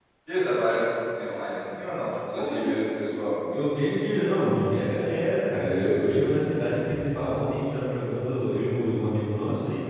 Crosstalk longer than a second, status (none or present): none